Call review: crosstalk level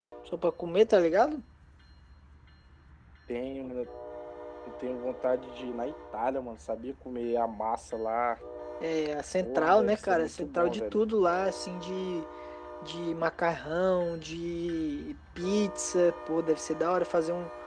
present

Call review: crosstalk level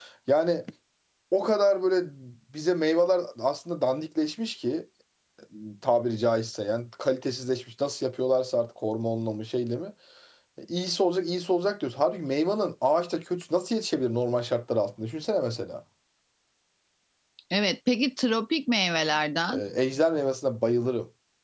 none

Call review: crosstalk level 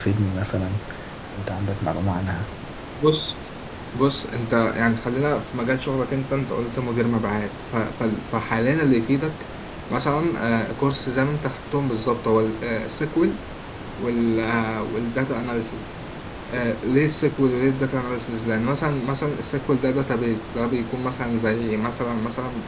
none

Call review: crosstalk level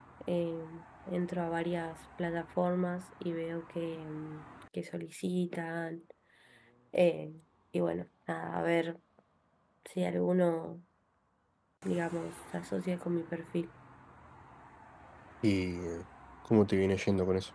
none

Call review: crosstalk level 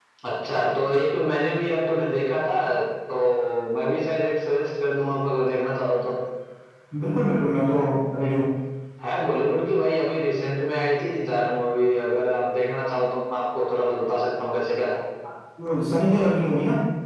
none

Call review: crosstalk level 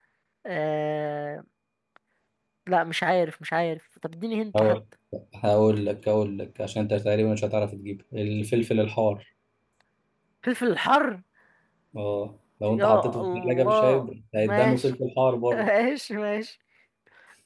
present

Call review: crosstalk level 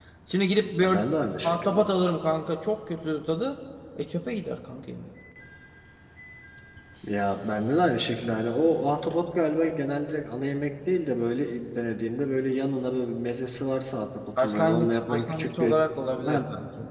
present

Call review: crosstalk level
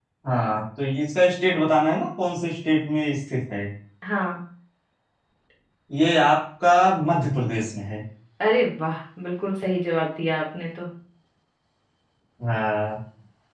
none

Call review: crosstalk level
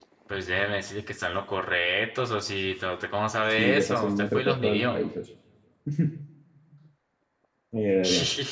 present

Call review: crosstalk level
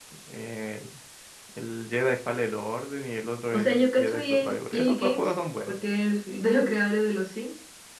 present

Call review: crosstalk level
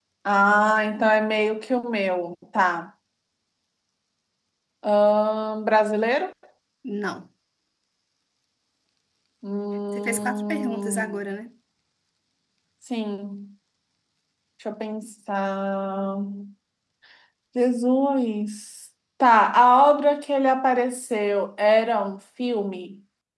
present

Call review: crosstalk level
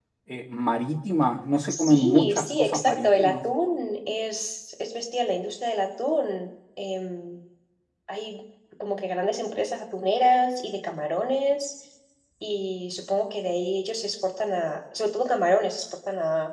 present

